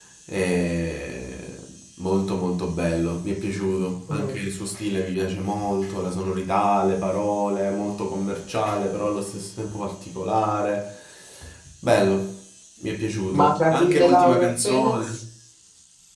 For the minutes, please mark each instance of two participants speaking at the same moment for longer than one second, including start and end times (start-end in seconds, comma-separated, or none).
13.3-15.2